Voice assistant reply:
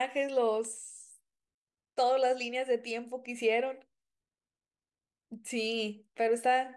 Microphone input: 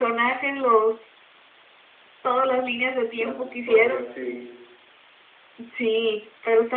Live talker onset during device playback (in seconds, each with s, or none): 3.2 s